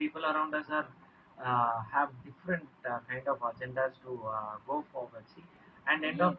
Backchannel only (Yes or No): No